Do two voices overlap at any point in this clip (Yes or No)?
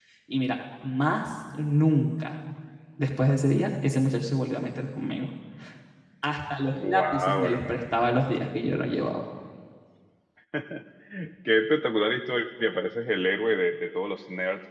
Yes